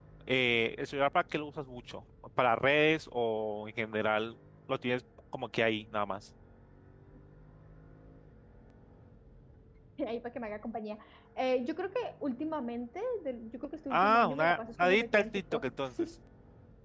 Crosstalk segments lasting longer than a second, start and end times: 13.9-15.6

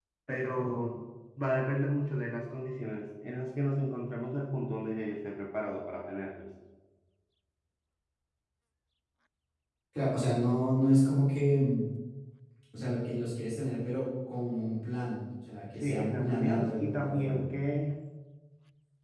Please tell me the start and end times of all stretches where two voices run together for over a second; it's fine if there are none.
15.8-17.4

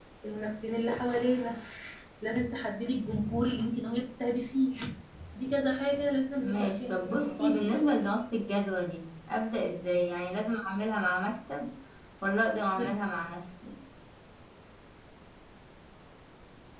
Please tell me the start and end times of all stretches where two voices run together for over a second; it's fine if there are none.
6.4-7.9

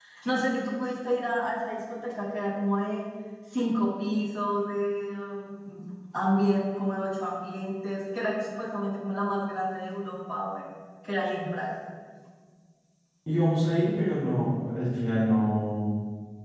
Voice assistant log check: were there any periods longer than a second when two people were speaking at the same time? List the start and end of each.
none

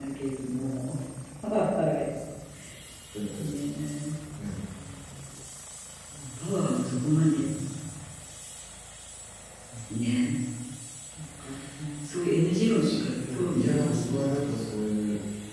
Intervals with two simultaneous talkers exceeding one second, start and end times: 12.8-14.3

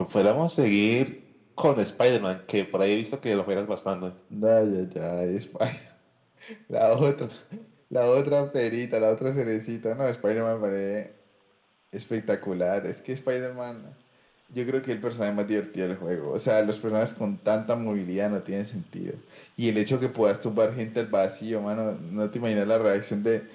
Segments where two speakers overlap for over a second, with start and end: none

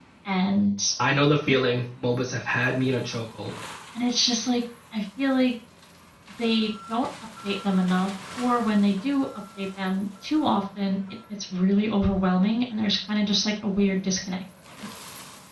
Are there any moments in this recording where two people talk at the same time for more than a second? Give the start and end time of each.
none

